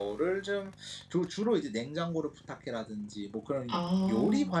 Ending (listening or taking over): listening